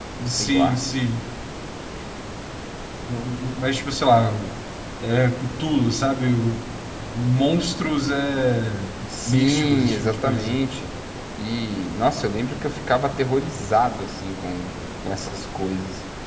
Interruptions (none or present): present